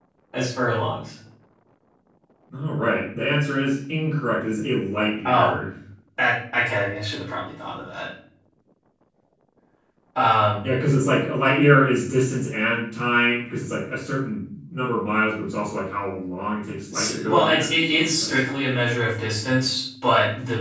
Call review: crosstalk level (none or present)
present